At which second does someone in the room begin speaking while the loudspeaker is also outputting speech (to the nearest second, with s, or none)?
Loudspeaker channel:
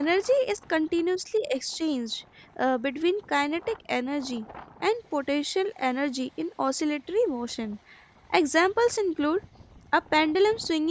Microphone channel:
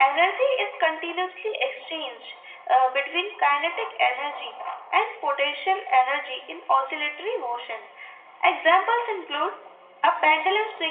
none